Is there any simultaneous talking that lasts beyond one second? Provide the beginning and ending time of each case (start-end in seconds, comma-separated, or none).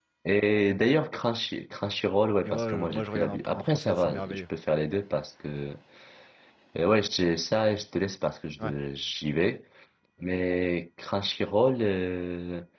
2.4-4.4